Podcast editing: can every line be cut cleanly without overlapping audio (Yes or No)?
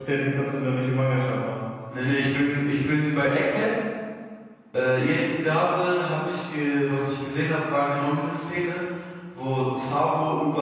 Yes